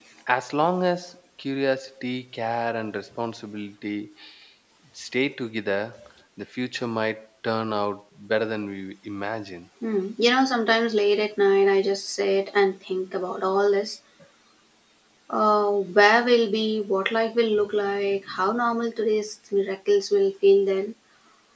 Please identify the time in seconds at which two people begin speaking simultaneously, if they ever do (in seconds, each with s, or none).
none